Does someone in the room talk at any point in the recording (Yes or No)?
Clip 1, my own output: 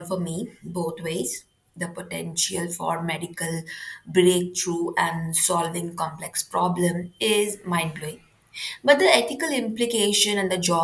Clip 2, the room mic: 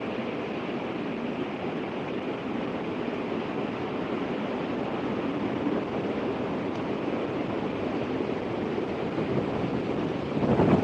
No